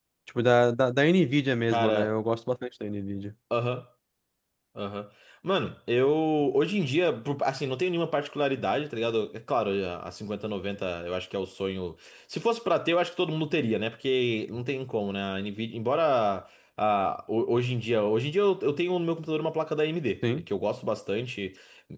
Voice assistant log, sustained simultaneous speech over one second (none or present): none